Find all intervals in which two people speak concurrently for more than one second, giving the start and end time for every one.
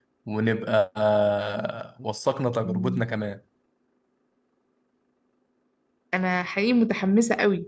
none

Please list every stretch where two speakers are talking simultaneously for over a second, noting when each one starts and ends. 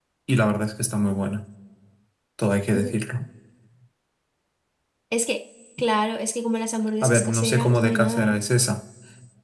7.0-8.4

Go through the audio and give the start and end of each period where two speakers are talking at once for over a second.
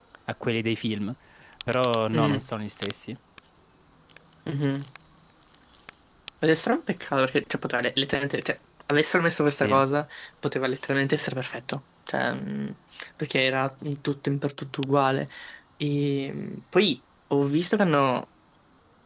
none

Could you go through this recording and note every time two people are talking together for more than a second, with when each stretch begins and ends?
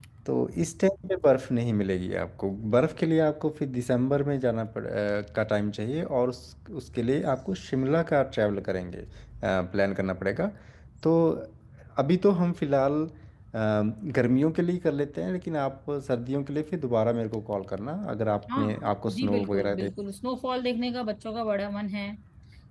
18.6-19.9

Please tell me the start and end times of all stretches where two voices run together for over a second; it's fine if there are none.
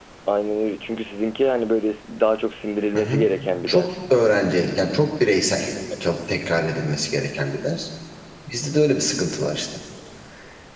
none

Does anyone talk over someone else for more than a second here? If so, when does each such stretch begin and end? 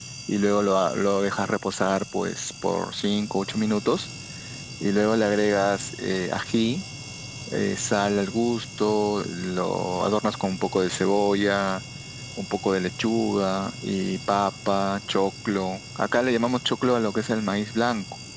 none

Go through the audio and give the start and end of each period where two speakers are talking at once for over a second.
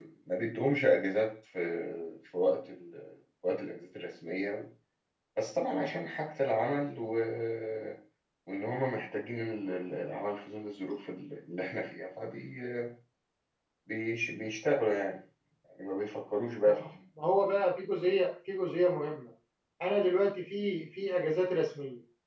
none

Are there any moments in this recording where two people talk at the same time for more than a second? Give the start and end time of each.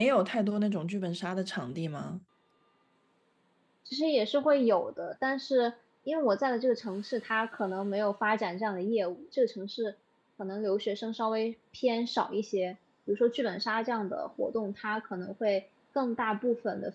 none

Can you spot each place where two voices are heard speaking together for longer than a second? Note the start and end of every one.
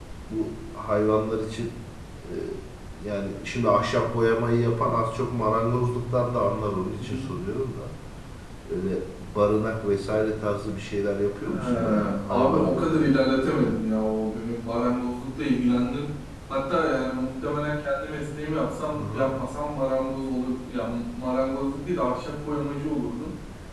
11.5-13.7

